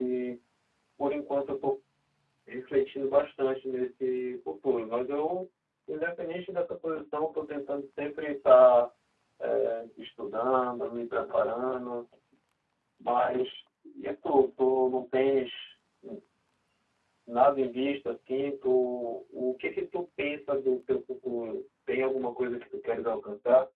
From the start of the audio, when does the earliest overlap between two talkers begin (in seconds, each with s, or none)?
none